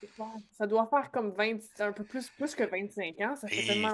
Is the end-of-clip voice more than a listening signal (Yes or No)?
Yes